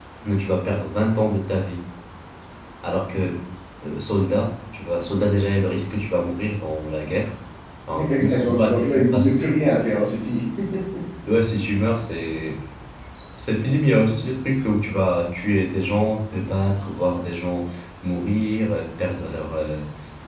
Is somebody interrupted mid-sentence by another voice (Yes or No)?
Yes